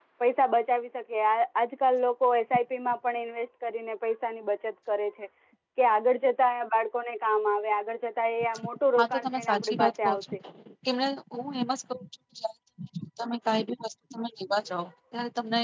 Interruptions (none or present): present